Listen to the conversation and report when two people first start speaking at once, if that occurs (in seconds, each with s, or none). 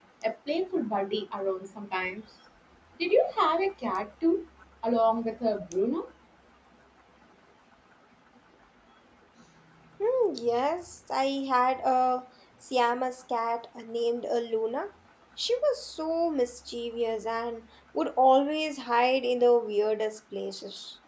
none